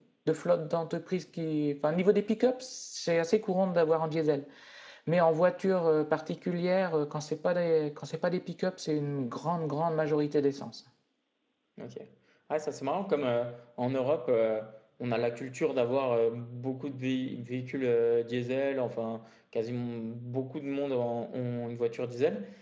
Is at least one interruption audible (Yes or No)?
No